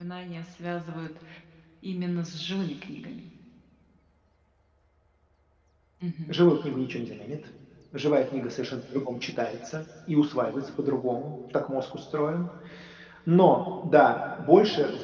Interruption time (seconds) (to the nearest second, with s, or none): none